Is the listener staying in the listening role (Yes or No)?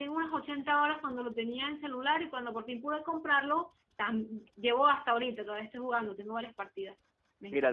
No